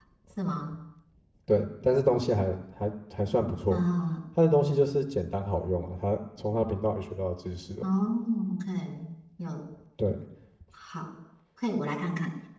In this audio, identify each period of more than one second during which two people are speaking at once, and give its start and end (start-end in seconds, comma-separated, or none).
none